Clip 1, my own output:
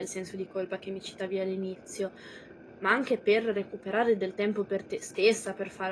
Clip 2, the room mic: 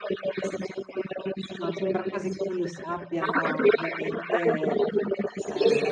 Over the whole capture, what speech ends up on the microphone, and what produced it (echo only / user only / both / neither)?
both